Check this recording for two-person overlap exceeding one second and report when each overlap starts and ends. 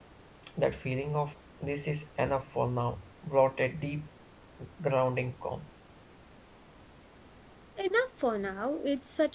none

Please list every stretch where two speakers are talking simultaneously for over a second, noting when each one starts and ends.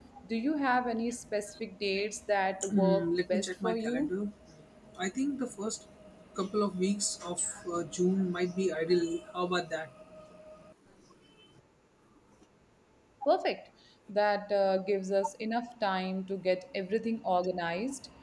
2.7-4.1

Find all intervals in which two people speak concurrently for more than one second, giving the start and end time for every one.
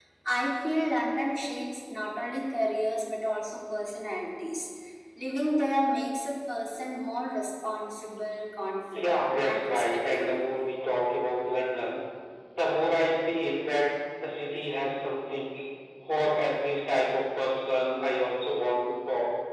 8.9-10.3

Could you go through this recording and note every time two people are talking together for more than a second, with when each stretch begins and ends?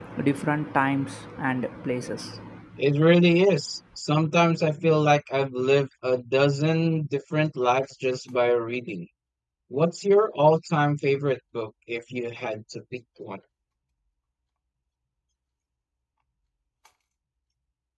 none

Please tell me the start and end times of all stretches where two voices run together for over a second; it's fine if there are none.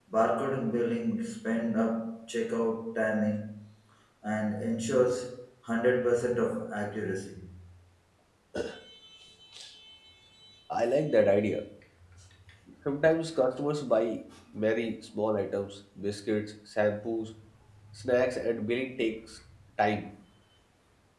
none

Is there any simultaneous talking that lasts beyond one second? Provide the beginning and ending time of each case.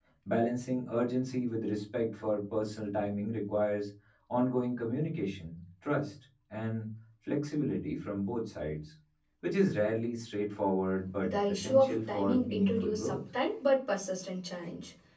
11.2-13.2

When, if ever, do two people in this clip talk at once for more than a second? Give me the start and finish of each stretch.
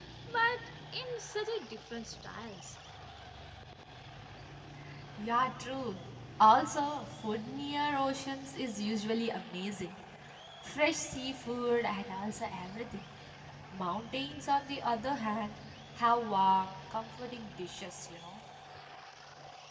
none

